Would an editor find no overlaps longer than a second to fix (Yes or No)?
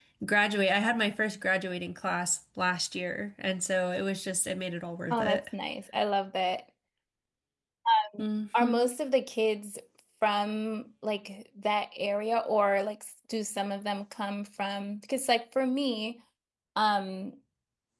Yes